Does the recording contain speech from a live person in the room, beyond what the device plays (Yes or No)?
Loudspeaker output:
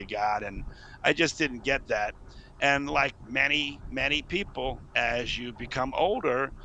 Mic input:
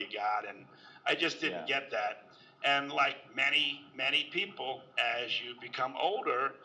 Yes